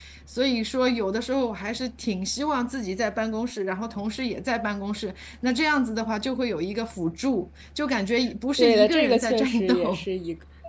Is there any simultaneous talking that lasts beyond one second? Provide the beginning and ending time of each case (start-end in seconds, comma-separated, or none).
8.6-10.1